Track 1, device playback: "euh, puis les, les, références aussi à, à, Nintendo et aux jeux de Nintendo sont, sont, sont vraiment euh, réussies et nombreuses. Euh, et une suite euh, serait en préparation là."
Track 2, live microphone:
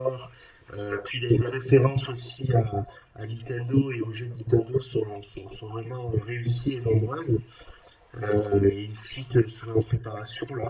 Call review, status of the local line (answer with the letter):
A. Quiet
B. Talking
A